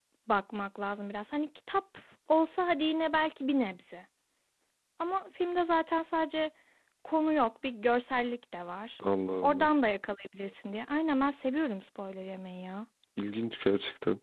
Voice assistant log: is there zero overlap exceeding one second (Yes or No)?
Yes